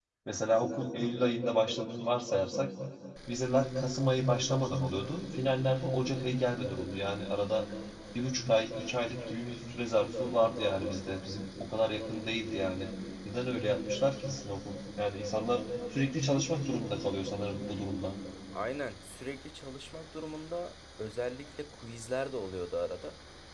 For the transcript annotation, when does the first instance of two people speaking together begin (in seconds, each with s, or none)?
none